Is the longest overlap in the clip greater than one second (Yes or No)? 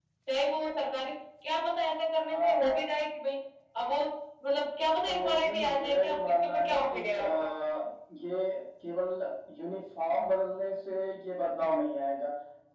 Yes